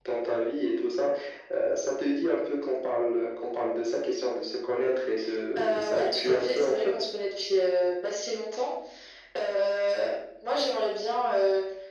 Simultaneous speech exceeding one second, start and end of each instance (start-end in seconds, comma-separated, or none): 5.6-6.9